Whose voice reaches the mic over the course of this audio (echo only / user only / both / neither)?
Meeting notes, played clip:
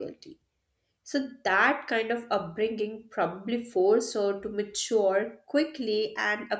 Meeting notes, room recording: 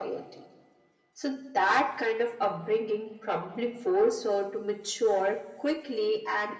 echo only